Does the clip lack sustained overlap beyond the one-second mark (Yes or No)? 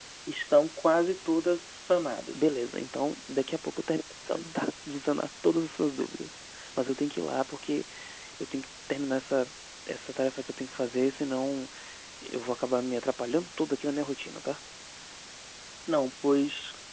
Yes